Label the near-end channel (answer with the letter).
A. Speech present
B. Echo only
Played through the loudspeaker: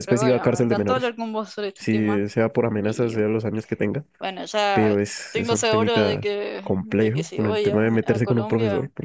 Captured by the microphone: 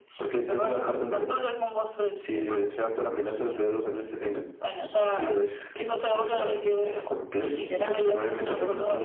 A